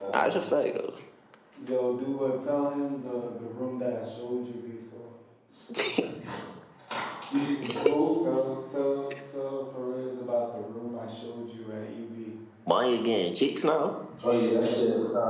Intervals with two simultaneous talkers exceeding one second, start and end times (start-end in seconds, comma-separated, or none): none